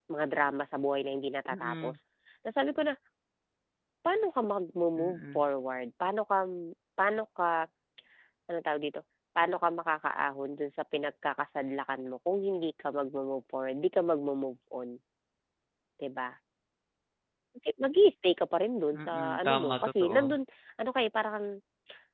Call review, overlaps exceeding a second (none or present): present